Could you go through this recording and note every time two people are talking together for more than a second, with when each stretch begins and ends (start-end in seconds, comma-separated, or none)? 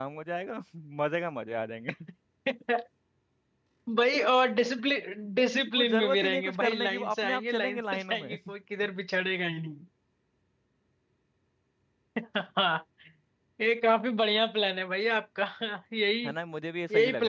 5.7-8.4